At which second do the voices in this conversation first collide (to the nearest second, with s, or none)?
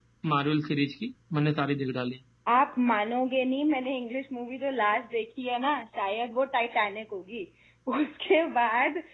none